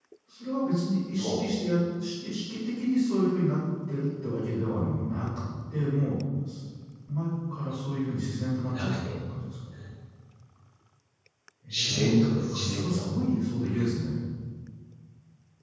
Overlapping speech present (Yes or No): Yes